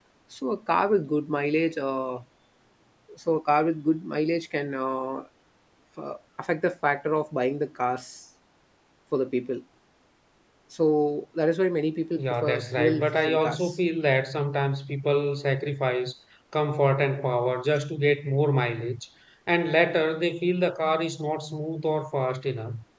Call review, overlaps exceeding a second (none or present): present